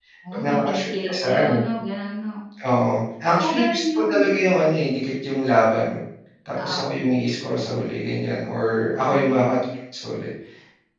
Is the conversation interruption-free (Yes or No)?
No